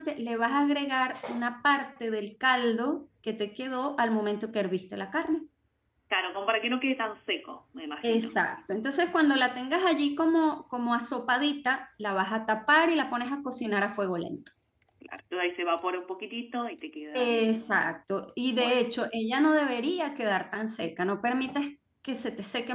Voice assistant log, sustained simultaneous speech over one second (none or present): none